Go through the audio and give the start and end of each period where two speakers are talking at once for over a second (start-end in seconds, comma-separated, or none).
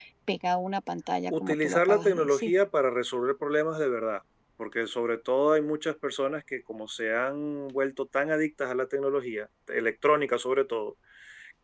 1.3-2.5